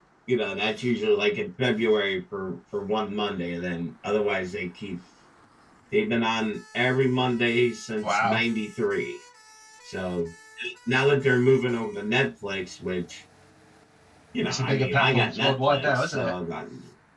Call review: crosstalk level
present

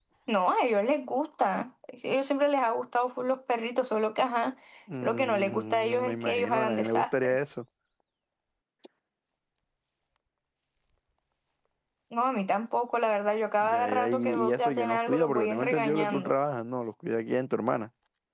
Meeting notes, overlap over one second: present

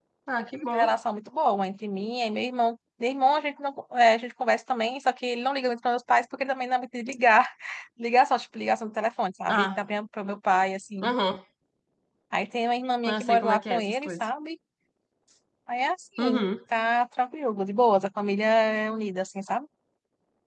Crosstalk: present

